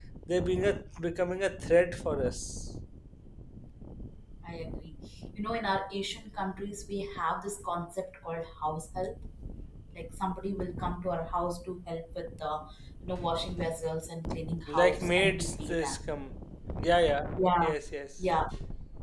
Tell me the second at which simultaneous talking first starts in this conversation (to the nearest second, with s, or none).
15 s